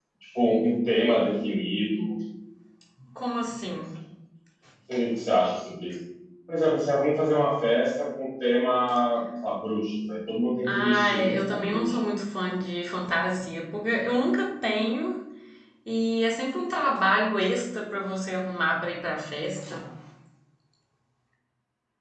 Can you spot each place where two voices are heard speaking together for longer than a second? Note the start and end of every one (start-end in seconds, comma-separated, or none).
10.7-12.0